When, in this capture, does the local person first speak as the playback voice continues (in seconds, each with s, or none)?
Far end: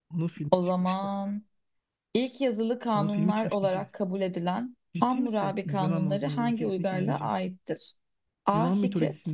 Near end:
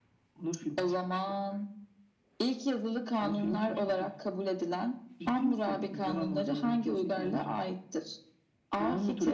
none